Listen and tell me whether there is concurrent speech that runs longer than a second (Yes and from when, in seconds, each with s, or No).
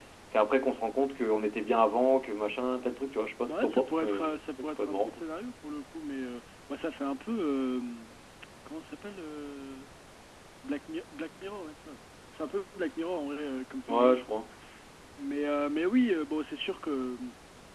Yes, from 3.4 s